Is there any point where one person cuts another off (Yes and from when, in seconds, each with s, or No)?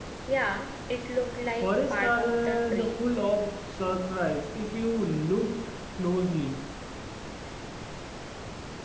Yes, from 1.6 s